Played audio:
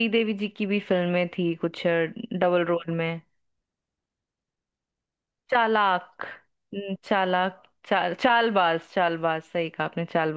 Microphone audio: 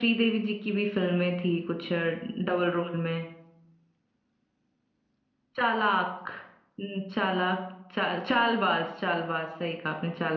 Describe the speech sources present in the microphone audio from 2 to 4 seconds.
echo only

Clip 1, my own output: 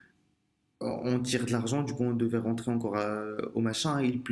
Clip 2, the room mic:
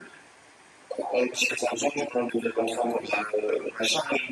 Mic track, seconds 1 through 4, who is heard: echo only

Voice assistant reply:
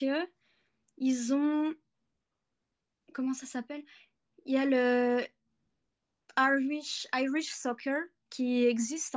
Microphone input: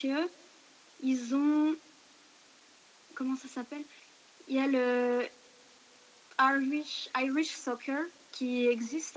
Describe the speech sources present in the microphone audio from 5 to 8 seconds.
echo only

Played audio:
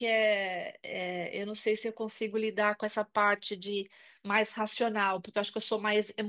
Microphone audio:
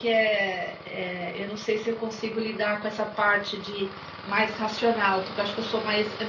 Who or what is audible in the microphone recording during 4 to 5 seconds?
echo only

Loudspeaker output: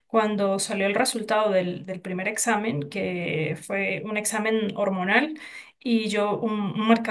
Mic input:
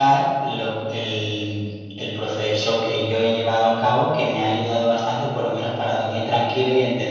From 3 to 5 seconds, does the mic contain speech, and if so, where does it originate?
user only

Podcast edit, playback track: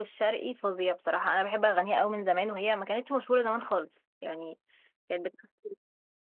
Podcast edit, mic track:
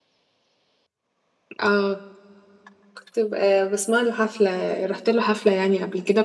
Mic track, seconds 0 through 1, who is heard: neither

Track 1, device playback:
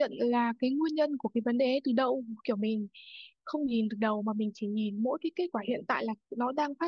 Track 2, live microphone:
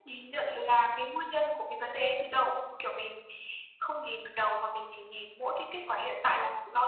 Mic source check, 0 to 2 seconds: echo only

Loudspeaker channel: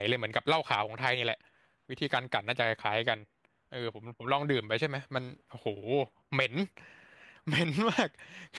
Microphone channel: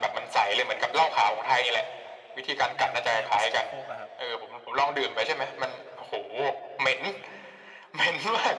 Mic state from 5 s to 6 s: echo only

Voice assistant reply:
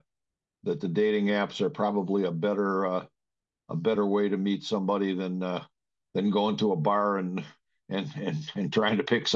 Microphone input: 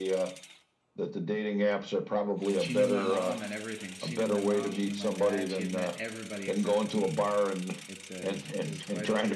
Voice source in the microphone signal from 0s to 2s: echo only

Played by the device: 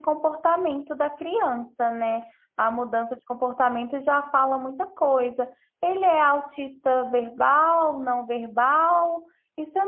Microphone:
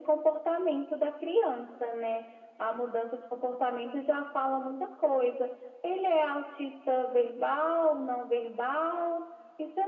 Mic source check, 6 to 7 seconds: echo only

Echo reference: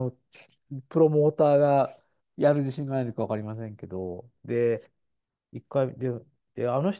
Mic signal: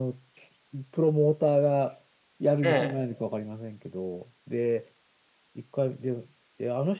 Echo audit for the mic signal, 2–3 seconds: both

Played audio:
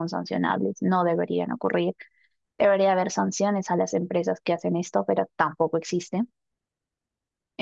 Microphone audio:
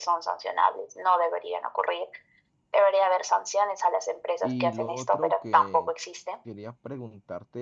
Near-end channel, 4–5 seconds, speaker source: both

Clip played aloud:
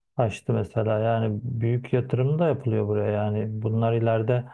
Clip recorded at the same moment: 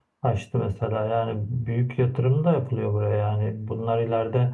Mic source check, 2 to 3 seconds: echo only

